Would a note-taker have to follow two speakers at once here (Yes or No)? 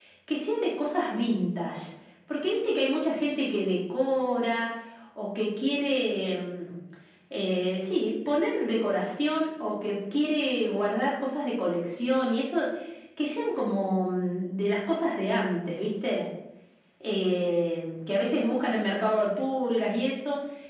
No